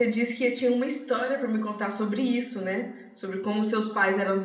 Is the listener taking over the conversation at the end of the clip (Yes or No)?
No